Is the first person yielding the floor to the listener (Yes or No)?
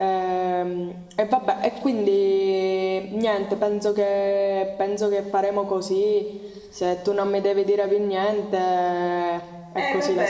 Yes